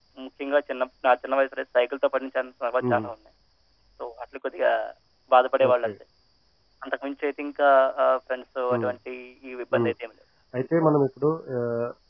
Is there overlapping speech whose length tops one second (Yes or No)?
No